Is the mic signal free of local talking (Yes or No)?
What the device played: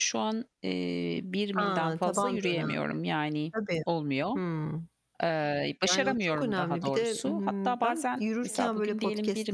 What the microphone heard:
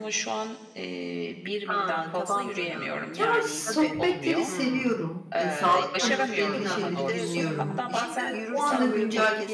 No